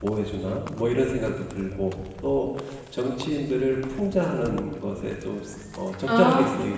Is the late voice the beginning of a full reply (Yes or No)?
No